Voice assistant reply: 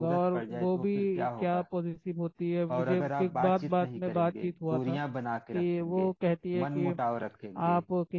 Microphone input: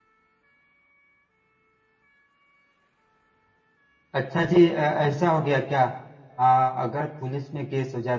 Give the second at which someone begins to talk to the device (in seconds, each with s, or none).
4.2 s